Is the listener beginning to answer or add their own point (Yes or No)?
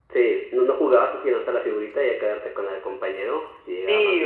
Yes